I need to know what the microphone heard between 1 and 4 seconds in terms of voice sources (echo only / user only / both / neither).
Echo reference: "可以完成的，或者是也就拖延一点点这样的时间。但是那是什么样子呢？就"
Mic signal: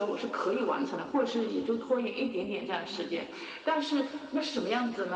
echo only